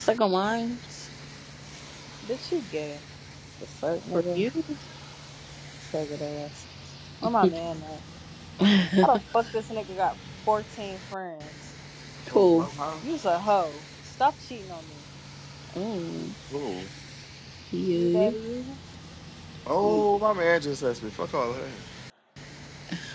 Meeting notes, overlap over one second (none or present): none